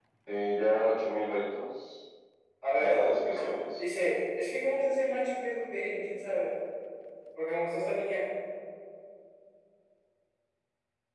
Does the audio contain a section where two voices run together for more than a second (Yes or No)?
No